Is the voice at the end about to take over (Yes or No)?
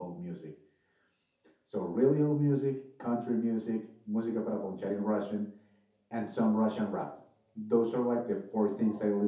No